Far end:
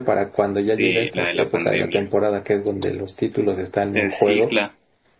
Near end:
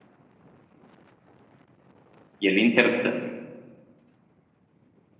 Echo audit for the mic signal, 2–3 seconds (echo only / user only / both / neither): user only